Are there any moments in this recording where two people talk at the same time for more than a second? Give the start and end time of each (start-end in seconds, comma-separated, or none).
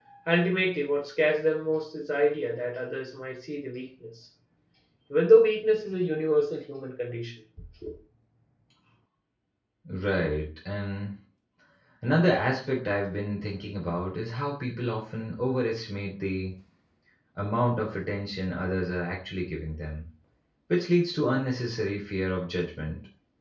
none